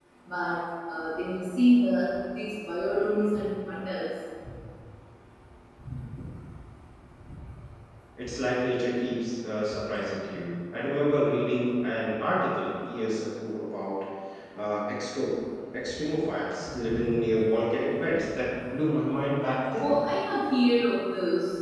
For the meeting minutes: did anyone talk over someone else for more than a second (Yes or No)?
No